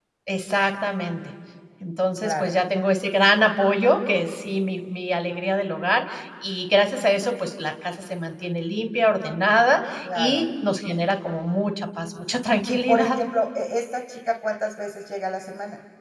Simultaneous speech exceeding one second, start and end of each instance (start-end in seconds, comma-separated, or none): none